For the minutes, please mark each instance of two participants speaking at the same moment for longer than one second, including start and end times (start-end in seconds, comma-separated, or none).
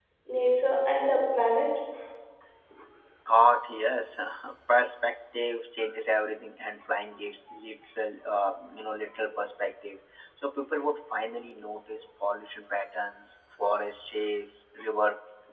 none